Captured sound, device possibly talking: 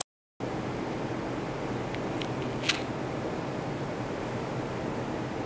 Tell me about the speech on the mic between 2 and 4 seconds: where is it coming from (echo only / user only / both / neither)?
neither